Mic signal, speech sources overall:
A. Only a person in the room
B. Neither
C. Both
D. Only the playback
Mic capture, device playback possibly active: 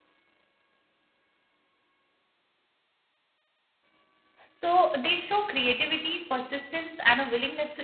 A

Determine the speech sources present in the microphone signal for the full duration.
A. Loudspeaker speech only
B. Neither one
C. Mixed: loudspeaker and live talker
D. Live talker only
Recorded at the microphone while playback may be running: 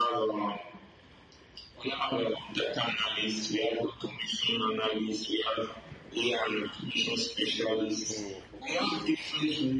C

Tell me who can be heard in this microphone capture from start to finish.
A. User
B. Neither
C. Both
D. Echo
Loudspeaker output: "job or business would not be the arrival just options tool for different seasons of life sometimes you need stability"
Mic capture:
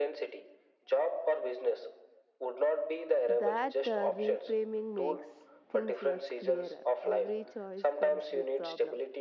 C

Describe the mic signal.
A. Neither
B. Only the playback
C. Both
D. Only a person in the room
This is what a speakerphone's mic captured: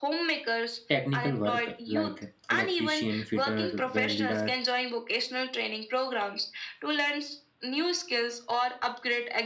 C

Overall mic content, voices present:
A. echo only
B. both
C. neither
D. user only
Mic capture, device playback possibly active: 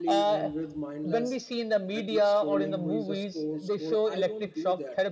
B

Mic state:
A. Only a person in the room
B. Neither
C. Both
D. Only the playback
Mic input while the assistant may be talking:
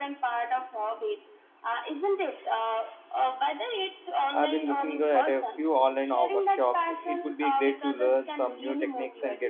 C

